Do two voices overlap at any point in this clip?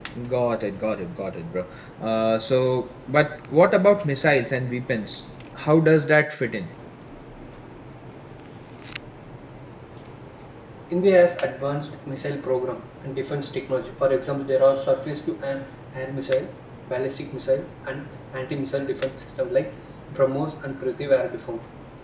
No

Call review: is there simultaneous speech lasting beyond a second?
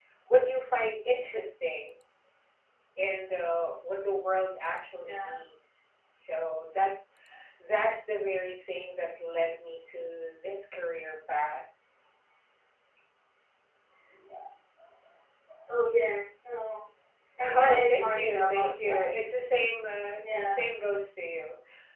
Yes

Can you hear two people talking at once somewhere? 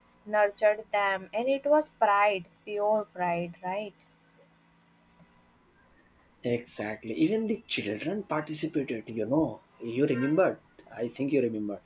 No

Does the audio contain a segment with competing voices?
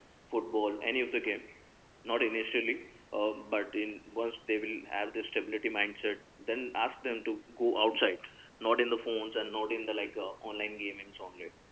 No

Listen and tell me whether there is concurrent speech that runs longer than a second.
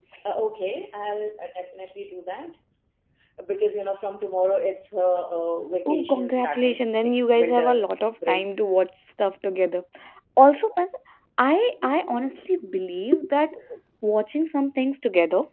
Yes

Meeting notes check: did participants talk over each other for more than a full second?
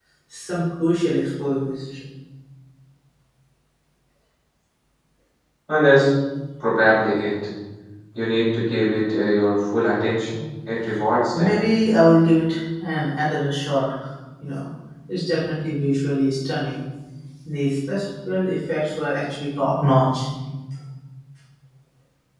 No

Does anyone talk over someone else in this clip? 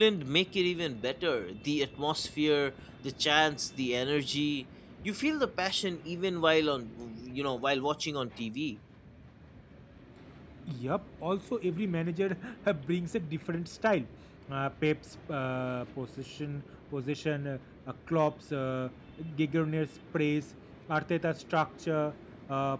No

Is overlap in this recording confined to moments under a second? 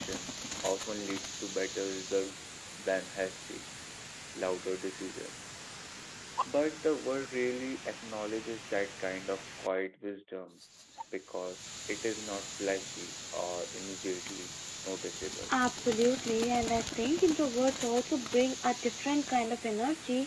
Yes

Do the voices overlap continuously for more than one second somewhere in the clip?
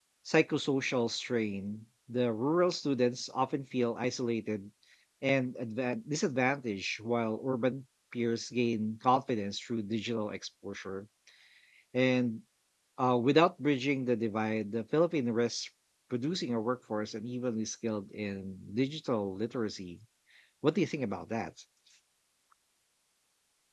No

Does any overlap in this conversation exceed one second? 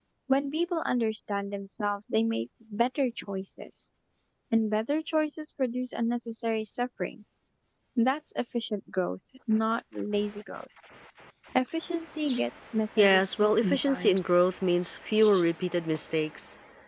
Yes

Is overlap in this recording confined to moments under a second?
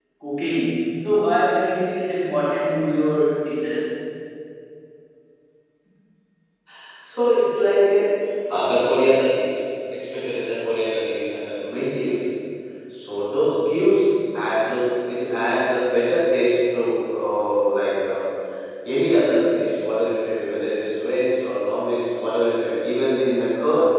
Yes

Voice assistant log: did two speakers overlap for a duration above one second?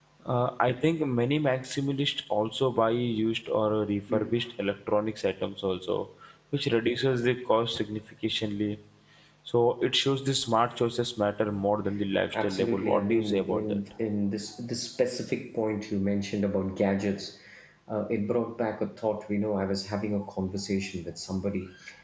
Yes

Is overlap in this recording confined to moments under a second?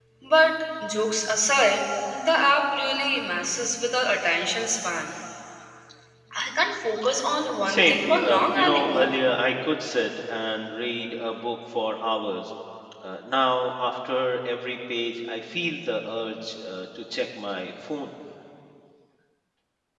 No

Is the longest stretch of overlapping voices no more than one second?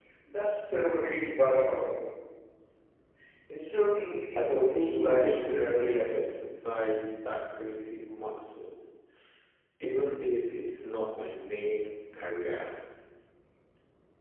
No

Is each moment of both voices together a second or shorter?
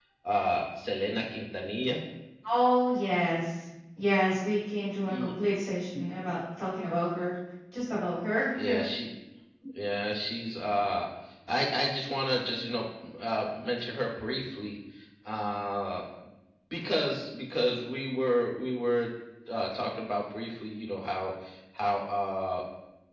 Yes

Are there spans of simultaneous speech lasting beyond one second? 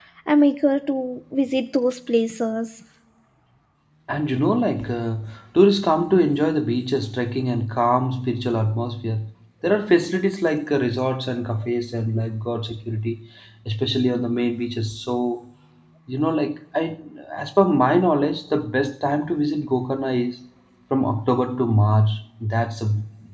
No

